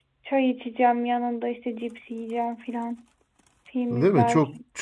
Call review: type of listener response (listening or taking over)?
taking over